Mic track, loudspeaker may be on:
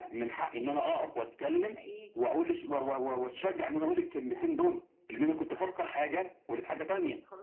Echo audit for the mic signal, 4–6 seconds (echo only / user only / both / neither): both